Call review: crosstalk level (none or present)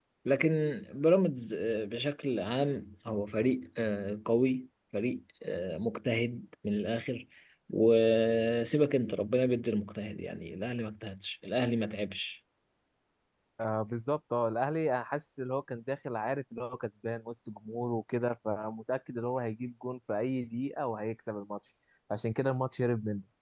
none